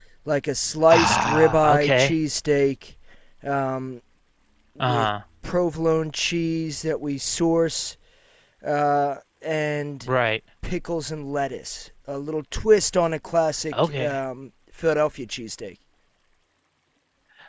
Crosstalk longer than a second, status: present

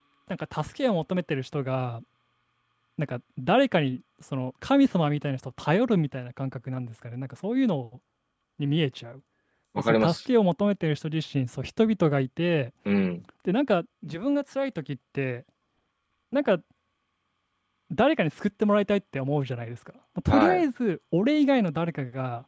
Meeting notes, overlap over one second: none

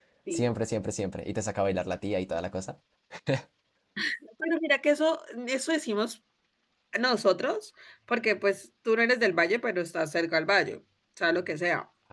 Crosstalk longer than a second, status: none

